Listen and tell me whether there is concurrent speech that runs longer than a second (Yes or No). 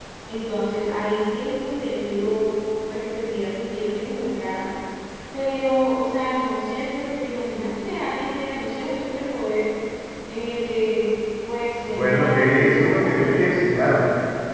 Yes